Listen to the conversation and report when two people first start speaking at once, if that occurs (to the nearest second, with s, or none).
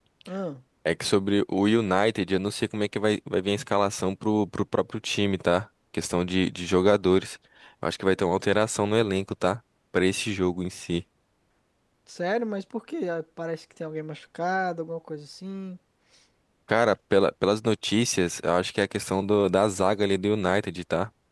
none